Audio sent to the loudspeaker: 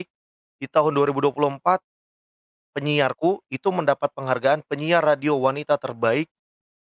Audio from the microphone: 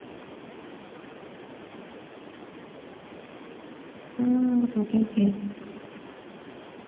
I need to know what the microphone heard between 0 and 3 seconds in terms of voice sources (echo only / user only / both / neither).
neither